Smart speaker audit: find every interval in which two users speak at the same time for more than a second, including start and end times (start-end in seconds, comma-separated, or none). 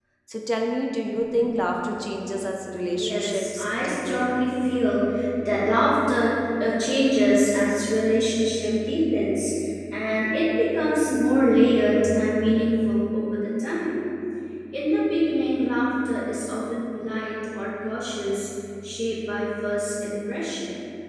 2.9-4.3